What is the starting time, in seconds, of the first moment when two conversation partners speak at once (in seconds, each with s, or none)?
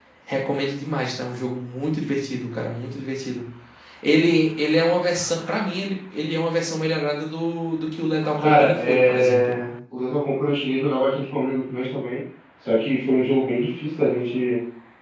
8.4 s